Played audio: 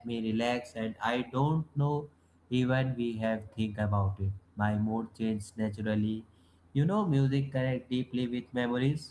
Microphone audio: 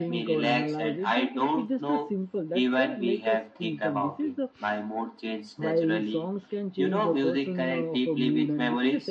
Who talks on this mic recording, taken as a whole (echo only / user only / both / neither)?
both